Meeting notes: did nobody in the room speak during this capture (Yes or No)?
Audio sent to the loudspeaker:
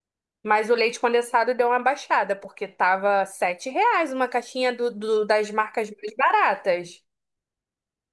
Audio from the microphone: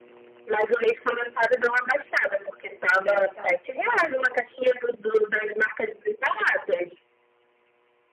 No